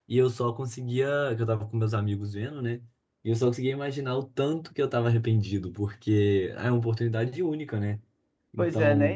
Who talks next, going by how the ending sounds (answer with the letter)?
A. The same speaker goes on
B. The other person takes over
B